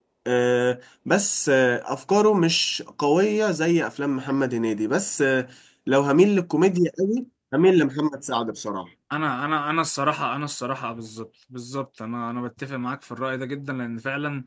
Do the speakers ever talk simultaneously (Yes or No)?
No